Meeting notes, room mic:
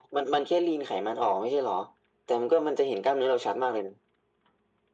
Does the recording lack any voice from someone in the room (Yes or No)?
Yes